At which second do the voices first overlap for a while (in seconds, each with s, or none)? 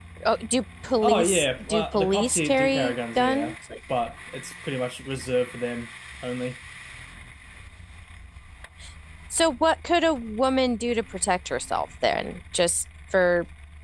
1.0 s